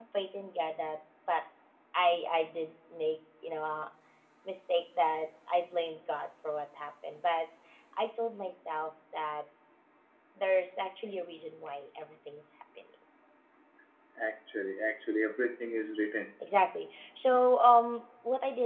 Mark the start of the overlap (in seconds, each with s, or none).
none